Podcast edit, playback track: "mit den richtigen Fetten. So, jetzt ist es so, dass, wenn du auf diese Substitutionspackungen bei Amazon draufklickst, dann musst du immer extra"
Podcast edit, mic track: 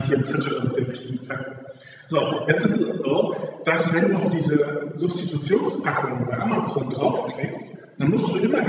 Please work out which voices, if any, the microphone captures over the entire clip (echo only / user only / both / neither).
echo only